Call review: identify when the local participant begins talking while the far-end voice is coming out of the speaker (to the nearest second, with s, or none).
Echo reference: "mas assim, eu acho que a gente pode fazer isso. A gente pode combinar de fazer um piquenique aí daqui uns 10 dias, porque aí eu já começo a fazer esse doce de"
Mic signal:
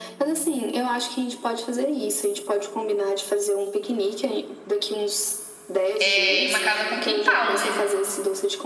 6 s